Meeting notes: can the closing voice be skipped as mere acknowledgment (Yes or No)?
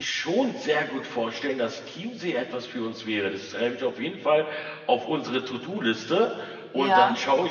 Yes